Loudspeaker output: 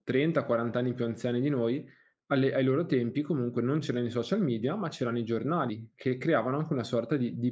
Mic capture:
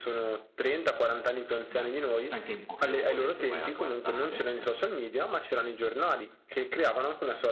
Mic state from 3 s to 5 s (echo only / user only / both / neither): both